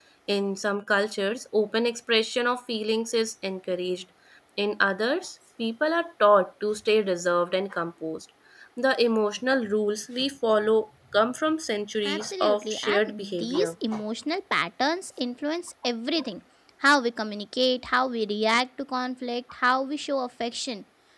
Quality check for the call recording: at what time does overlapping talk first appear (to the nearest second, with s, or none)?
12 s